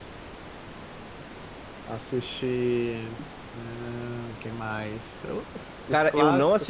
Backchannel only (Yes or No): No